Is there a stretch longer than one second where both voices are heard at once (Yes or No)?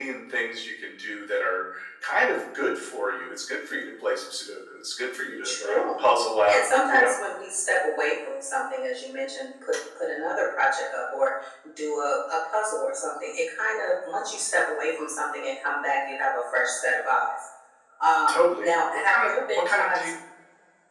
Yes